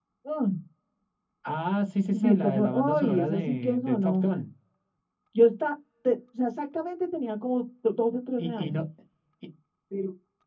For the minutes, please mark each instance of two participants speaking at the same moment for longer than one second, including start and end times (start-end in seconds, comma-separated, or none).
2.1-4.2